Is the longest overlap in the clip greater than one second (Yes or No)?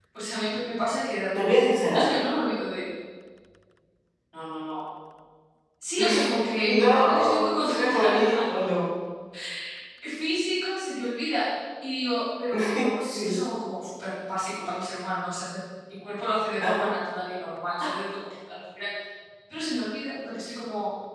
Yes